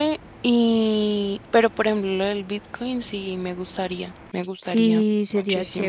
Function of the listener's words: taking over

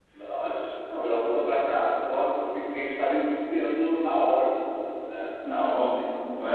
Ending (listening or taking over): taking over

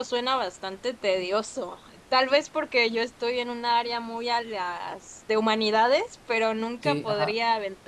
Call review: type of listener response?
listening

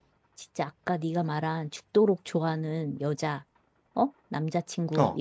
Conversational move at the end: listening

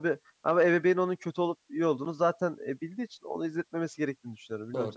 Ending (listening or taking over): taking over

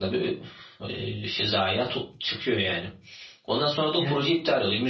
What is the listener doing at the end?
listening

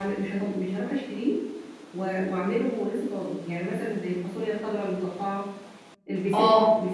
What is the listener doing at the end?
listening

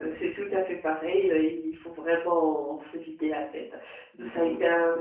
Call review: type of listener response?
listening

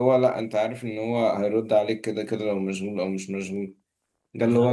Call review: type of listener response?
listening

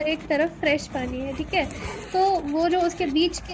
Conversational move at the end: listening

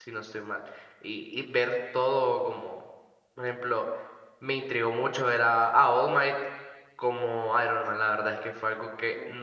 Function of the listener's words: listening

